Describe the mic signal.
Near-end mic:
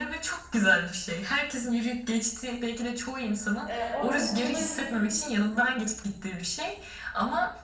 both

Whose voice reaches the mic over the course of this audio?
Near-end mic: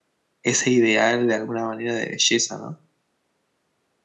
user only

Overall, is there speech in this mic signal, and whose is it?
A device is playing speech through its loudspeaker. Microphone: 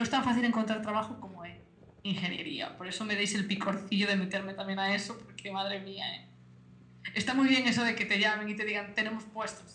echo only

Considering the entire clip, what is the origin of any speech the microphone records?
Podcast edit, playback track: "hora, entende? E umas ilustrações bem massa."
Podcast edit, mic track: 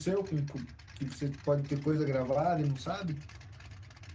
user only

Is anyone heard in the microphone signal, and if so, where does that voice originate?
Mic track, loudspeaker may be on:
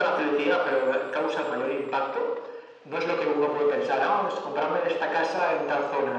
echo only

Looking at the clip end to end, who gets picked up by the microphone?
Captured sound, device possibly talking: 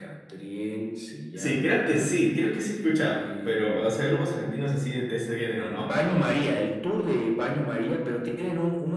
both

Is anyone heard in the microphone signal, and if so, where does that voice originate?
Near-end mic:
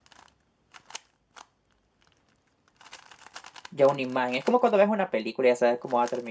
user only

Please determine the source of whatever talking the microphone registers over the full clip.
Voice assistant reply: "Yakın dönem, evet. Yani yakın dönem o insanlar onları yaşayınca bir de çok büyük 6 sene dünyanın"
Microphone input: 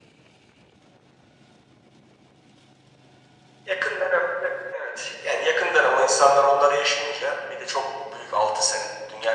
echo only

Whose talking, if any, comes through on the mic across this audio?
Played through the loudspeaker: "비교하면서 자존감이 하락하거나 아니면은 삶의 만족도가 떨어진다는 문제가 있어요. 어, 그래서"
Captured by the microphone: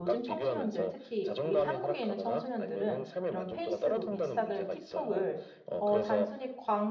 both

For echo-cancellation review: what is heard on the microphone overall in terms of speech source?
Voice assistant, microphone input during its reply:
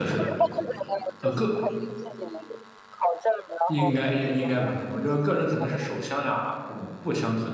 both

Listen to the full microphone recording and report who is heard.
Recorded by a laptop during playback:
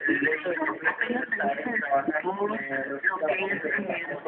both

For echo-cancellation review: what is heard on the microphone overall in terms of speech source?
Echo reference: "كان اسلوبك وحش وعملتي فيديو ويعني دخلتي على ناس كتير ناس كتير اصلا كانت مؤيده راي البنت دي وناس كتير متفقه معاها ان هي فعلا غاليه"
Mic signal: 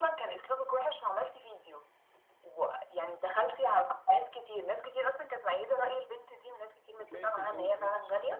both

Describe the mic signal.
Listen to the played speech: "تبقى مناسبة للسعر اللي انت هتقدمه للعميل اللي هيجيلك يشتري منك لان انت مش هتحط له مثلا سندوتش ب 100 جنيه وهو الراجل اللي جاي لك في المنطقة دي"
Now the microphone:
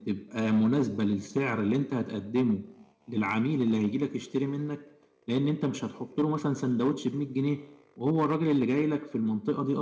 echo only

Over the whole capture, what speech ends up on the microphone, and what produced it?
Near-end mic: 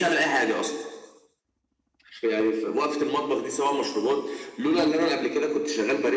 echo only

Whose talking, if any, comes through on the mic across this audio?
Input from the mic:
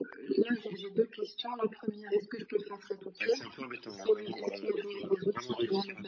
echo only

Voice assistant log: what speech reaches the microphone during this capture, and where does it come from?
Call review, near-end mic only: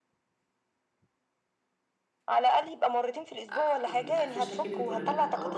both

